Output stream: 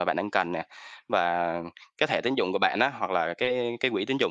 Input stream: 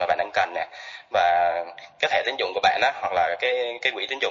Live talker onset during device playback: none

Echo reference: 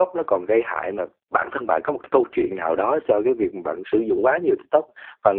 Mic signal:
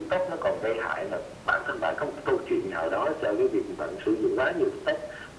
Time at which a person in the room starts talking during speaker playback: none

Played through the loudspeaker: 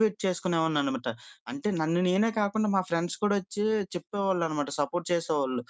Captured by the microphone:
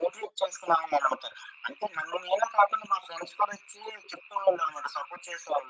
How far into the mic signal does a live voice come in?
none

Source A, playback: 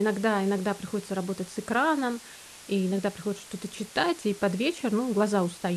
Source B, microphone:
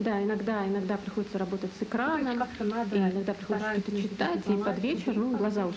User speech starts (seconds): 2 s

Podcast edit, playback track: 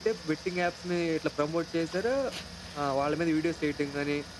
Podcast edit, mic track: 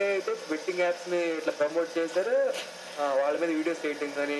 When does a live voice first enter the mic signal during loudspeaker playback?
none

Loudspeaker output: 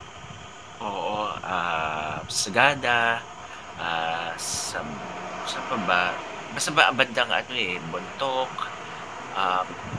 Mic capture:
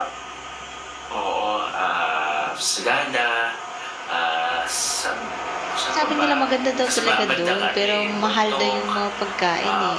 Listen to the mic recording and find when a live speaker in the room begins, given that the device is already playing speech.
6 s

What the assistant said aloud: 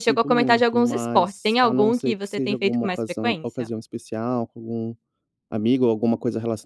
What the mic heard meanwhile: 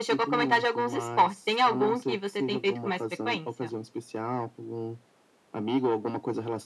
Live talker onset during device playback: none

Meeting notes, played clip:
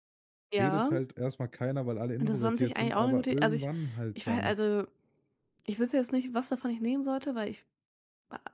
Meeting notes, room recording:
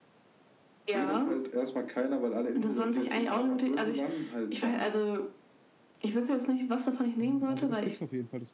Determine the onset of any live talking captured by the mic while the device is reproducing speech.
7 s

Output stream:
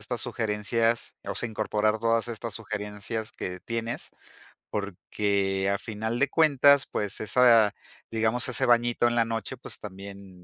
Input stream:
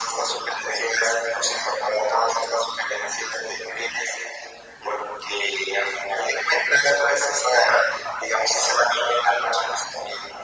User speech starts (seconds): none

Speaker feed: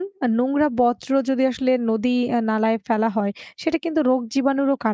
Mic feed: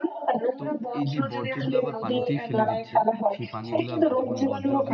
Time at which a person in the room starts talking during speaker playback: 1 s

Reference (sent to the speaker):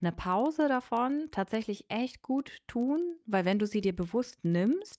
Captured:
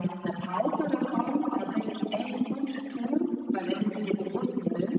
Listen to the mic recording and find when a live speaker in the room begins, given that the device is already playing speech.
none

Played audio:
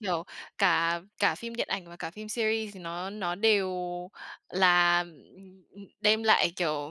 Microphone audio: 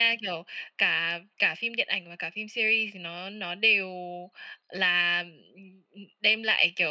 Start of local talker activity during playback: none

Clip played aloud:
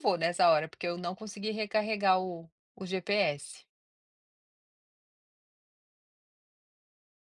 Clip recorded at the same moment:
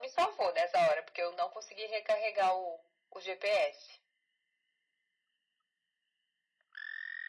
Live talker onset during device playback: none

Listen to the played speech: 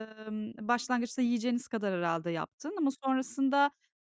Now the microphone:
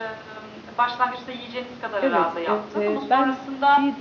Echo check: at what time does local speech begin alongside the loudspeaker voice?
2 s

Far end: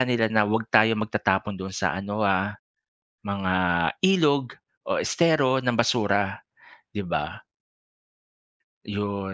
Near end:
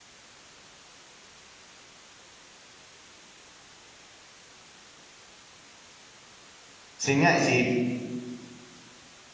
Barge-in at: 7 s

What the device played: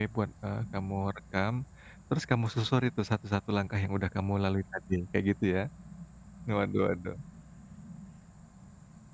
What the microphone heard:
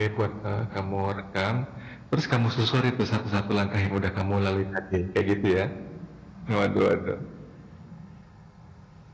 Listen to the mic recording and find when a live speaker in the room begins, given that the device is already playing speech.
none

